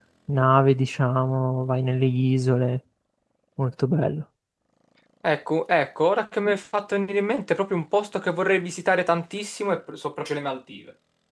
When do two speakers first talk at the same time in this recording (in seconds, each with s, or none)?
none